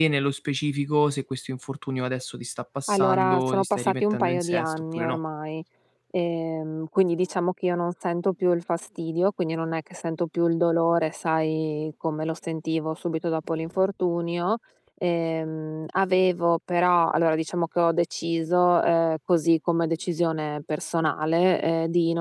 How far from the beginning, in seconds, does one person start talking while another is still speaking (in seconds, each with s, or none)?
2.9 s